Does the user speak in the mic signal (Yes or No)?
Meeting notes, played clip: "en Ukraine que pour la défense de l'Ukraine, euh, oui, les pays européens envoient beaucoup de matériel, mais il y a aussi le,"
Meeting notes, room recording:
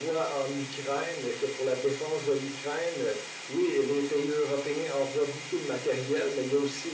No